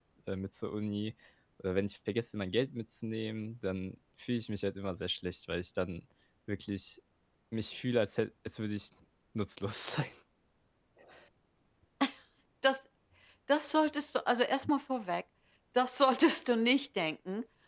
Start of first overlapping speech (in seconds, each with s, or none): none